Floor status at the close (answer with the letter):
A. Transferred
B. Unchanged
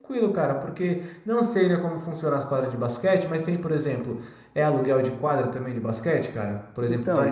A